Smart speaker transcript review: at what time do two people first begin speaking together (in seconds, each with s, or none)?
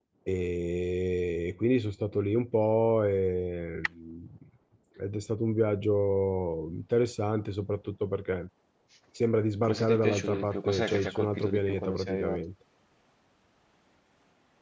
9.6 s